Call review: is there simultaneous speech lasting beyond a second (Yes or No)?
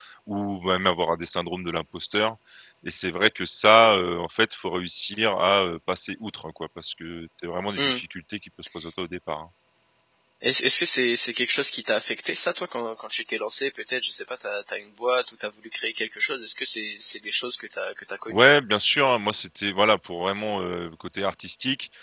No